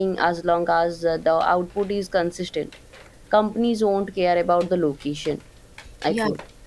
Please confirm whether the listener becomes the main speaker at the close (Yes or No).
Yes